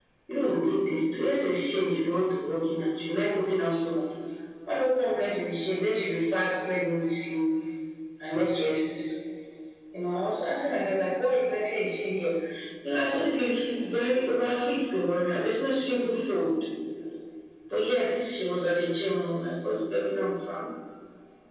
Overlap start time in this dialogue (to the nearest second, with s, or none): none